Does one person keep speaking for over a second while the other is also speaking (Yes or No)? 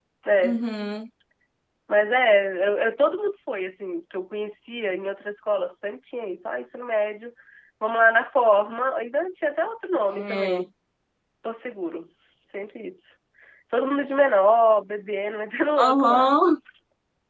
No